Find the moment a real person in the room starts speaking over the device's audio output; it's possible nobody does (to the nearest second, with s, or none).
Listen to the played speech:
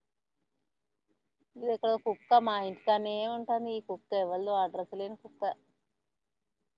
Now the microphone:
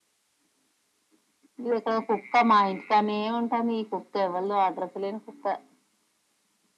none